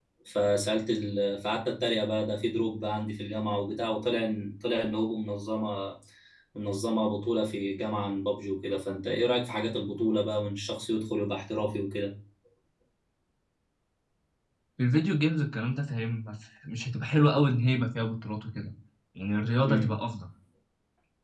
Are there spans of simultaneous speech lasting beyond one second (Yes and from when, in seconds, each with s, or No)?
No